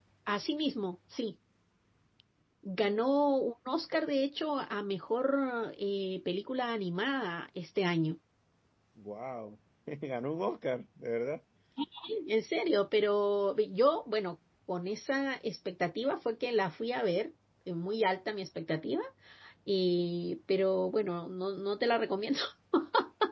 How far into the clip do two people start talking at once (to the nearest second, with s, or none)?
none